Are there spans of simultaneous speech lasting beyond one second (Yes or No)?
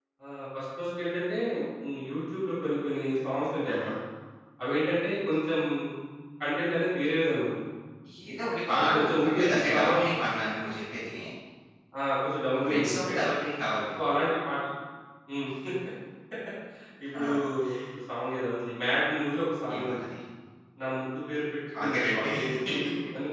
Yes